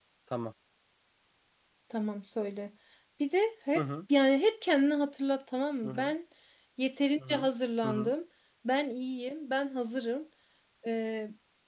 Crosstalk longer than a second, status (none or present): none